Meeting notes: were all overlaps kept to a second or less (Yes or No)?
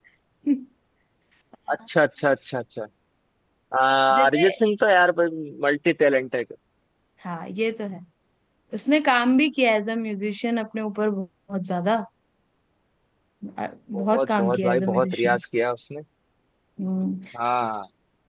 No